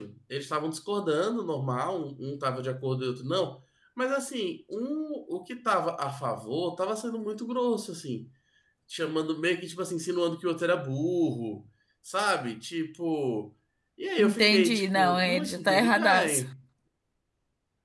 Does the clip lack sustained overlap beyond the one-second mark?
No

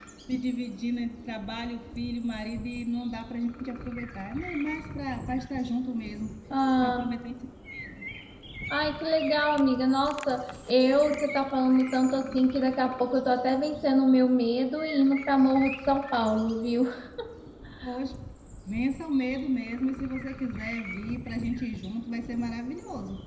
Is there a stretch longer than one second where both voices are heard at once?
No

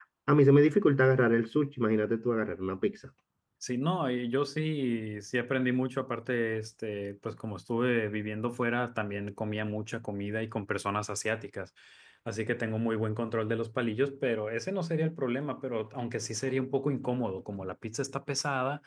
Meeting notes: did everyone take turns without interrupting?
Yes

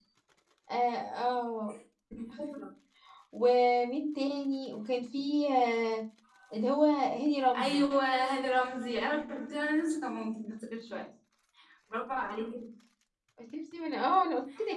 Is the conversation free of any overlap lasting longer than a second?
Yes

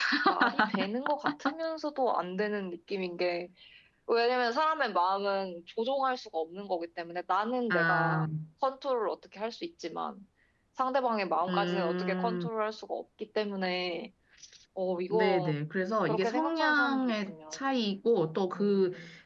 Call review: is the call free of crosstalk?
No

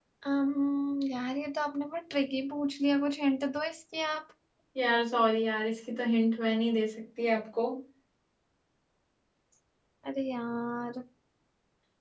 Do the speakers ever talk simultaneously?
No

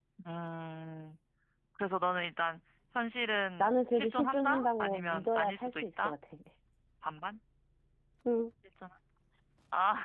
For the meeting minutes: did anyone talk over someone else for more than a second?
Yes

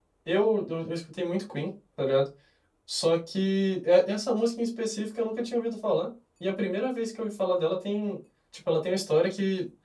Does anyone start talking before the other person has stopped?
No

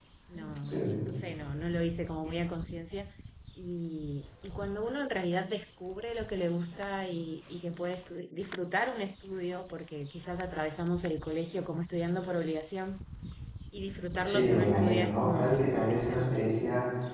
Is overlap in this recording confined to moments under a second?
No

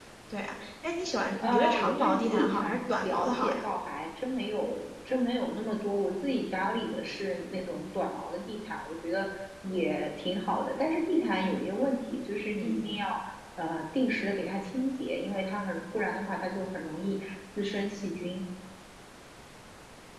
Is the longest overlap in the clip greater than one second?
Yes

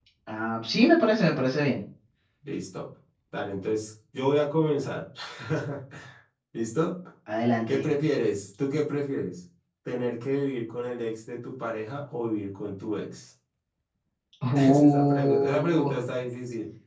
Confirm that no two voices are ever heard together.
No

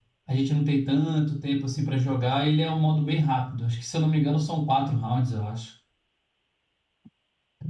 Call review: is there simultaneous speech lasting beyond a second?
No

